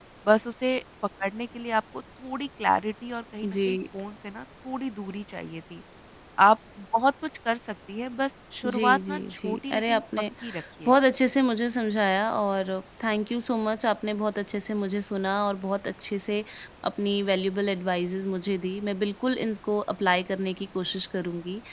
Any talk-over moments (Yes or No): Yes